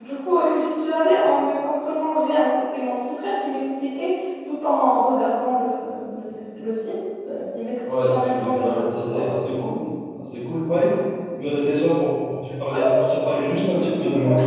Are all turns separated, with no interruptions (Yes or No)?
No